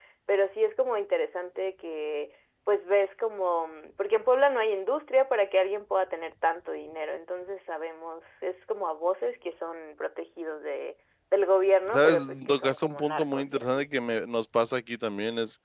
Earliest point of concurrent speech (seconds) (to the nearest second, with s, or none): 12 s